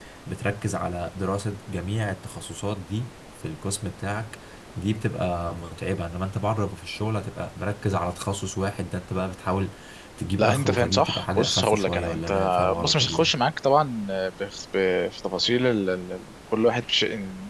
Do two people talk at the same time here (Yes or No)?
Yes